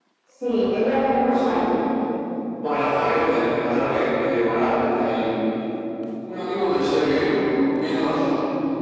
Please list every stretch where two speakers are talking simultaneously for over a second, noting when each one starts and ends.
none

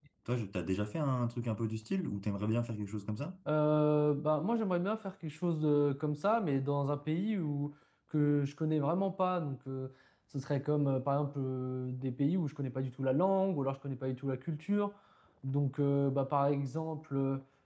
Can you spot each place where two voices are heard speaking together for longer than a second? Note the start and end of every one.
none

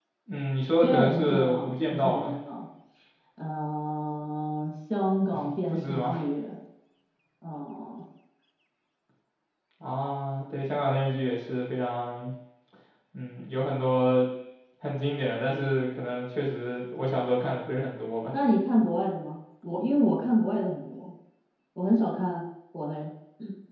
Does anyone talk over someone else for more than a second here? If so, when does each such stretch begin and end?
0.8-2.4

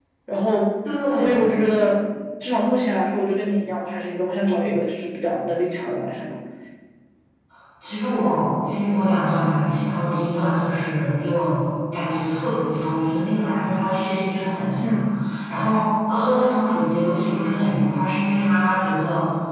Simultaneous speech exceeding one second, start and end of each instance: none

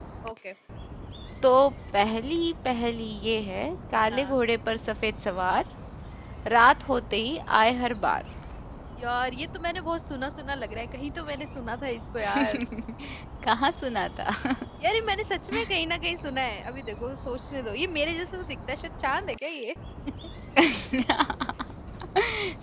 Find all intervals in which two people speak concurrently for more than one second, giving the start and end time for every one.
none

